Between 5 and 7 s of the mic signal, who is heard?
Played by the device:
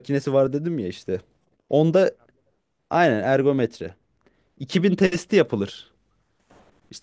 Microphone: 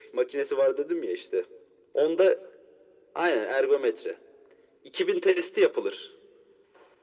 echo only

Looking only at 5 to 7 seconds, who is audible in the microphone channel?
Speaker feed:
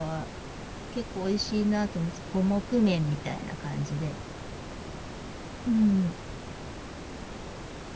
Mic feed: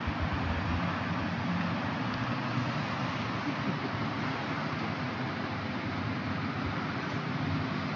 neither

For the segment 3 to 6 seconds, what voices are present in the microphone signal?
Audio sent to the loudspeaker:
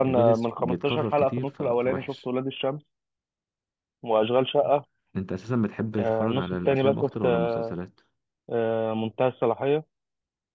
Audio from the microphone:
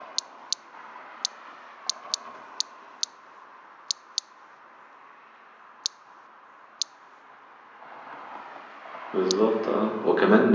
neither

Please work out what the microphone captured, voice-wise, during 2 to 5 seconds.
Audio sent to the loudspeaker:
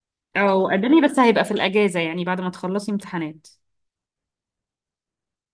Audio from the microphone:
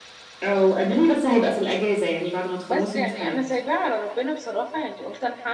both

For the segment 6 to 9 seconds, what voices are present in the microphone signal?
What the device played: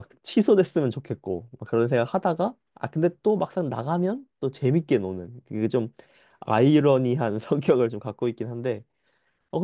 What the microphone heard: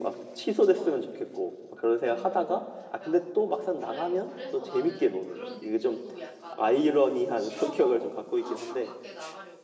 both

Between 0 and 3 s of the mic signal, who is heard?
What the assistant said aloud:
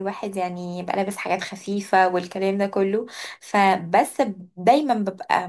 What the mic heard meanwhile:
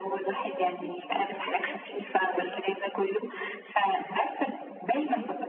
both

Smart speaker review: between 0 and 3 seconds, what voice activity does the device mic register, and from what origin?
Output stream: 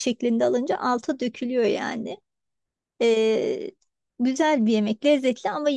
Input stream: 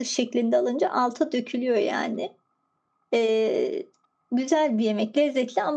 echo only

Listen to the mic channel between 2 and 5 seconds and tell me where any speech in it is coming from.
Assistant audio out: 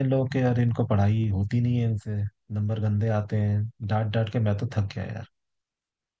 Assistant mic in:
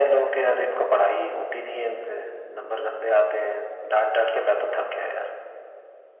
echo only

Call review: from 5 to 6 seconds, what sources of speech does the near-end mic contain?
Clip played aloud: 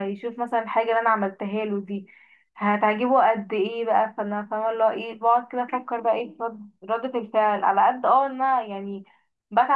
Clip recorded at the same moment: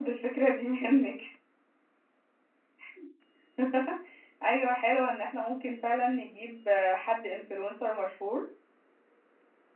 user only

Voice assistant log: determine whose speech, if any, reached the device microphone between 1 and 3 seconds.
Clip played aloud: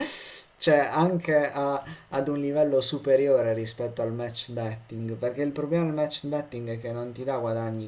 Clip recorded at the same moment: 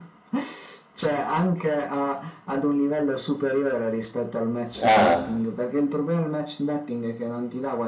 echo only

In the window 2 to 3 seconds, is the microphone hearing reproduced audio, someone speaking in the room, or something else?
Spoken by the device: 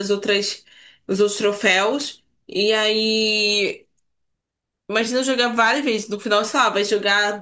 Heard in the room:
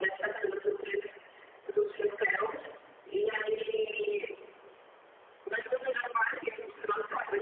echo only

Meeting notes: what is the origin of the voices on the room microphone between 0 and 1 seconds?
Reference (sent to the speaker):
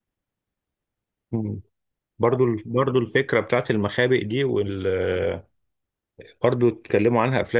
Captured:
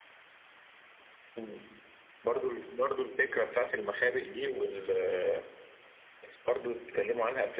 neither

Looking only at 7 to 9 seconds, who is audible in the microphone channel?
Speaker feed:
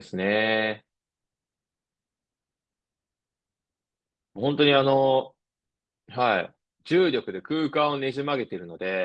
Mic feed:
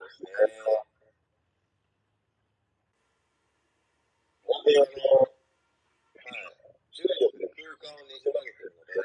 echo only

